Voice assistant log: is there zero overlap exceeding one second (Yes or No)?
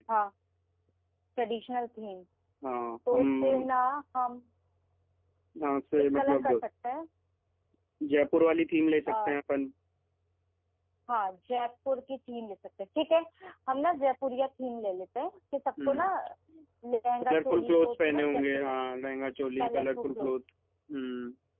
No